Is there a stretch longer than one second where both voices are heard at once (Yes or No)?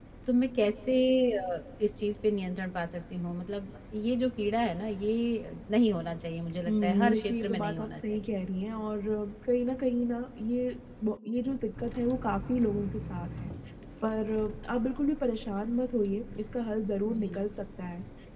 Yes